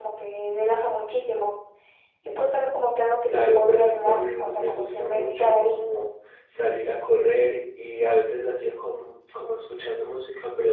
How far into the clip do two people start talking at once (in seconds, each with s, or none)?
3.5 s